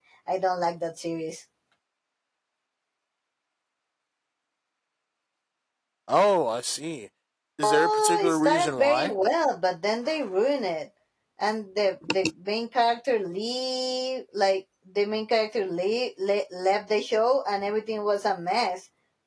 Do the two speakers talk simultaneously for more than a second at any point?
Yes, from 7.6 s

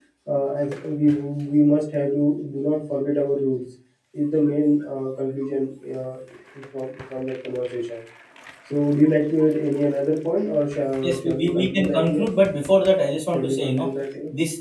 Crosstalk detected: Yes, from 11.0 s

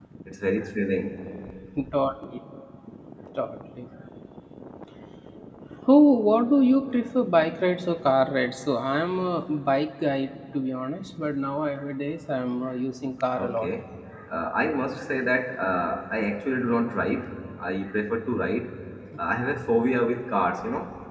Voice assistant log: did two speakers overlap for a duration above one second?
No

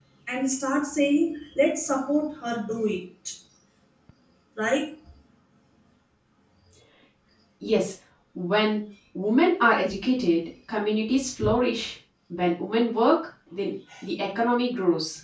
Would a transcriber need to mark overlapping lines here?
No

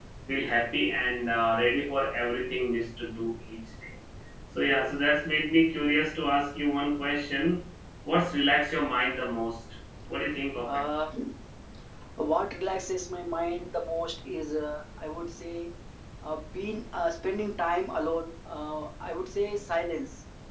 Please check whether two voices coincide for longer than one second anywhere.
No

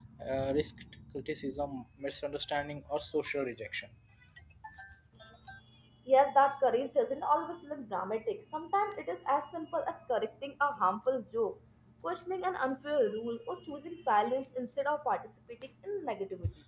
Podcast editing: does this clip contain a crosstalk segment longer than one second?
No

